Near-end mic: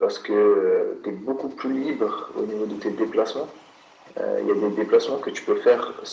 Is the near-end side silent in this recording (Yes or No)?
Yes